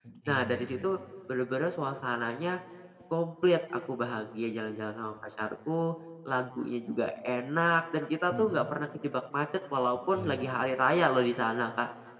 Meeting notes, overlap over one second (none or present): none